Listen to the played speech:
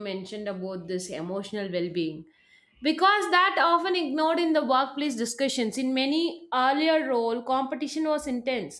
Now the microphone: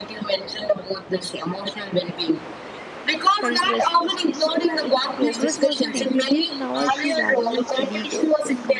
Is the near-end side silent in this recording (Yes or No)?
No